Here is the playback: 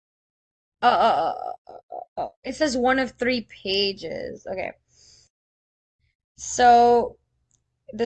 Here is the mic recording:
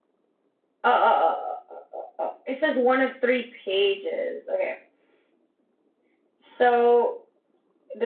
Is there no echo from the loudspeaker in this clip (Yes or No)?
No